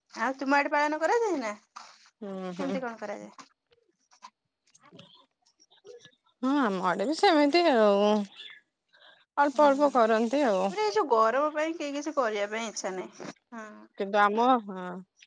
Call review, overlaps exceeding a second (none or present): none